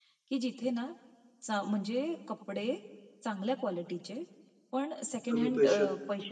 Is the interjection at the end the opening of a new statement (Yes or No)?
No